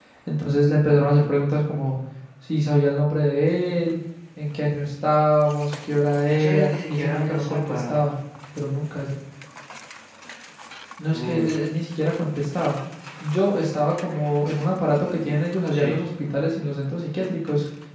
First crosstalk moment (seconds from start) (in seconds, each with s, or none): 6.3 s